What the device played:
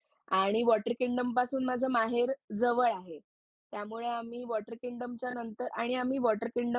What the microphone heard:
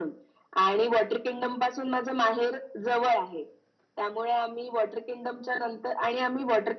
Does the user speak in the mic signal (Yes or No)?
No